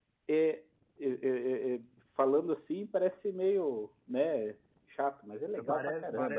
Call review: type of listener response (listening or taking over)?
taking over